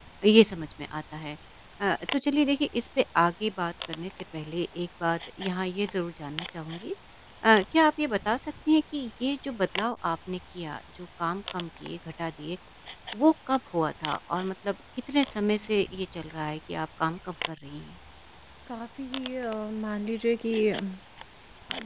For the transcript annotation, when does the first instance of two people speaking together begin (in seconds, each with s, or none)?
none